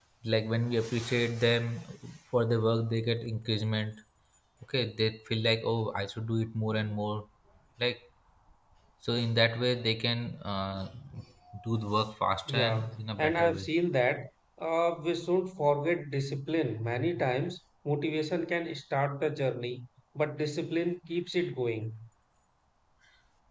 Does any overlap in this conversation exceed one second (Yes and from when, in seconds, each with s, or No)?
Yes, from 12.5 s